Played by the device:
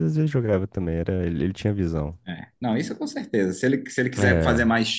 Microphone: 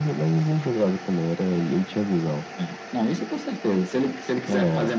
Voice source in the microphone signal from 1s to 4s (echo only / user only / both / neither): echo only